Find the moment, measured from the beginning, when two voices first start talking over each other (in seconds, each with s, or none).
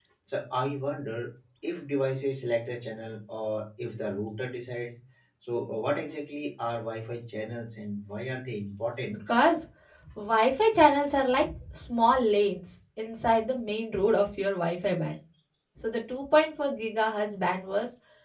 none